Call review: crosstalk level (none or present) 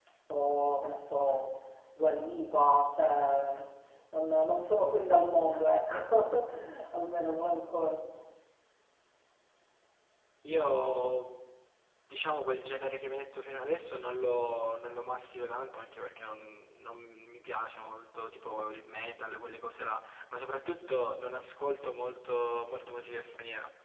none